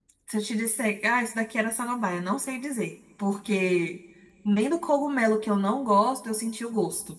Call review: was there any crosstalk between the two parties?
No

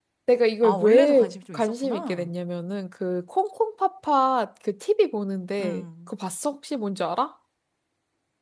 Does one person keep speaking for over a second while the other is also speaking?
Yes, from 0.6 s

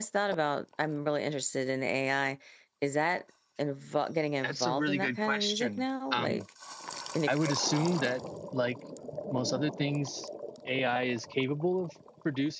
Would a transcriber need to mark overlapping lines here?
Yes, from 4.4 s

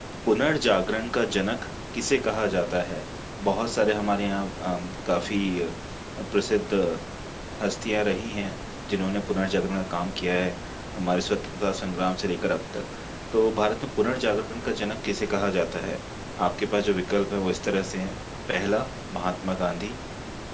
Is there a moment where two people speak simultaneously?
No

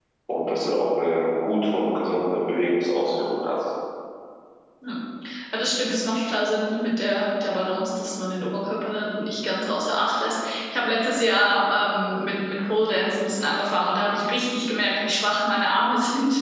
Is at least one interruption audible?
No

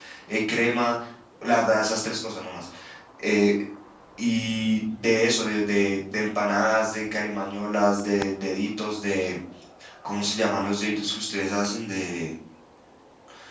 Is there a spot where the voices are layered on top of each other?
No

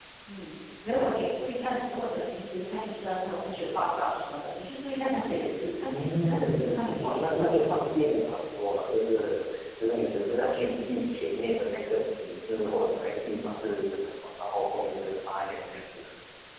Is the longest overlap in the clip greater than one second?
Yes, from 5.9 s

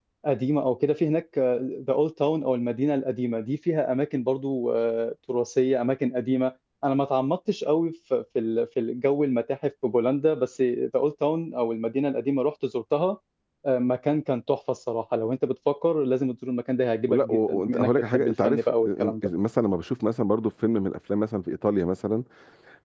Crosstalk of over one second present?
Yes, from 17.1 s

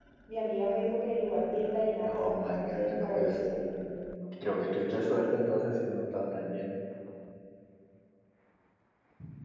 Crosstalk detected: Yes, from 2.0 s

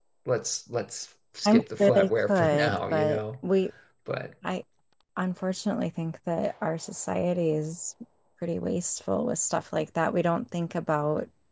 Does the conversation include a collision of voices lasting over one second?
Yes, from 1.4 s

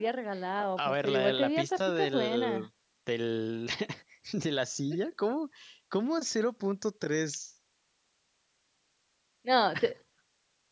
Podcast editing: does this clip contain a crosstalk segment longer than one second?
Yes, from 0.8 s

